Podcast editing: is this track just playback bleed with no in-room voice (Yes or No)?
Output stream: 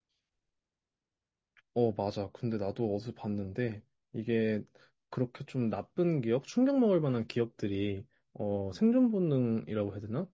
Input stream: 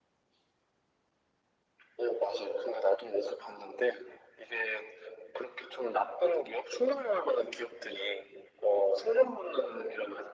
Yes